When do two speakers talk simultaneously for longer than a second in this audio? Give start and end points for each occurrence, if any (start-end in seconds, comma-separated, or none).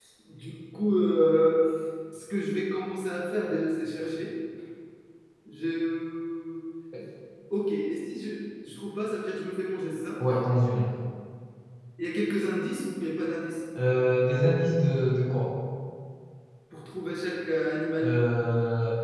none